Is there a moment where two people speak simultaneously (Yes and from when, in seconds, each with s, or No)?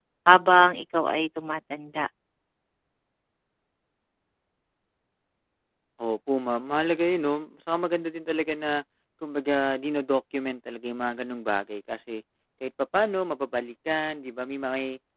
No